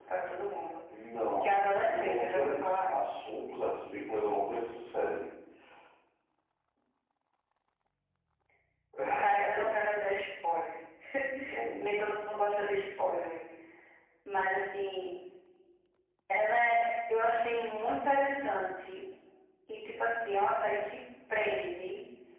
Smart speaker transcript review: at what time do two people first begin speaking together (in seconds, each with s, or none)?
1.4 s